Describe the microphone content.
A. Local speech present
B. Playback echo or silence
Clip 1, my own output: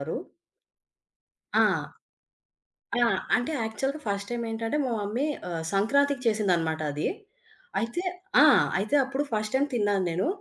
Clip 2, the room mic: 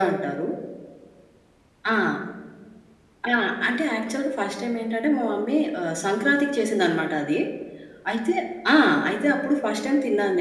B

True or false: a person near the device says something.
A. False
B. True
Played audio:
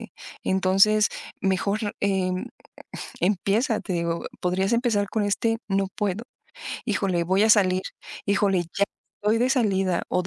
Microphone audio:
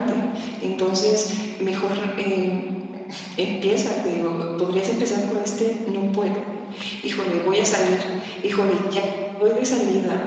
A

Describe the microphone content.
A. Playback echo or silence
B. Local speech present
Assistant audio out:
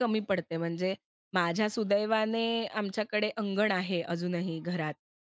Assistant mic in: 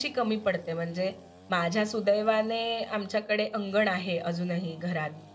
A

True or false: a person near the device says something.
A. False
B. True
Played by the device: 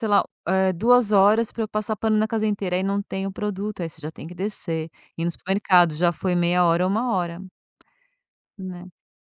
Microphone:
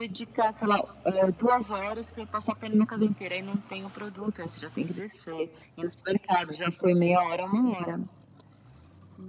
A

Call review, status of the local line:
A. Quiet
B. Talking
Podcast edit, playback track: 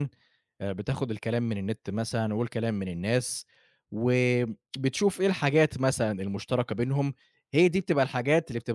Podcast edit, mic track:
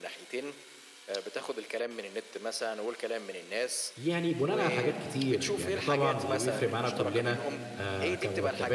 B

